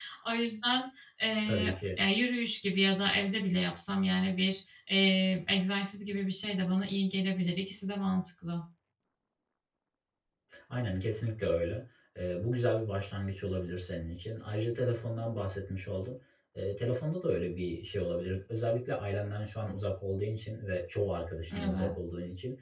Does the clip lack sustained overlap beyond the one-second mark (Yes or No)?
Yes